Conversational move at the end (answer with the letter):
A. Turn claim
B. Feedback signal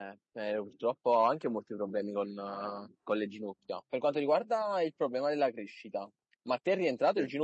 B